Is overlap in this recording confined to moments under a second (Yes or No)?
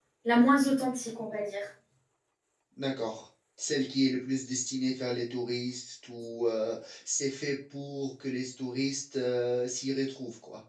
Yes